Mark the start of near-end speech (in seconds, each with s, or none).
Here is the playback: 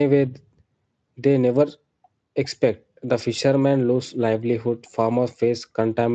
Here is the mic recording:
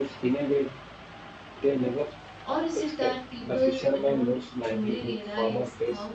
2.4 s